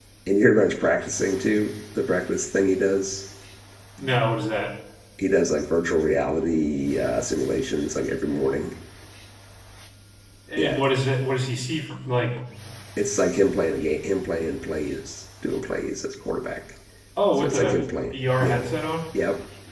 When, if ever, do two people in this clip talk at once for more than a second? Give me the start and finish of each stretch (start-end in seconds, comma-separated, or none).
17.4-18.6